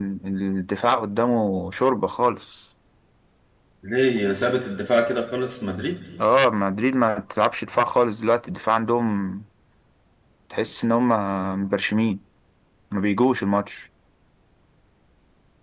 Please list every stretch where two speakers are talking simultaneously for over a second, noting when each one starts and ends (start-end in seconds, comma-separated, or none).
none